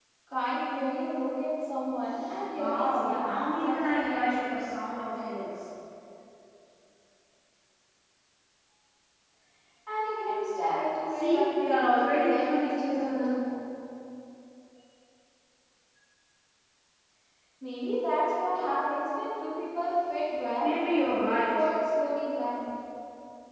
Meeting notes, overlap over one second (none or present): present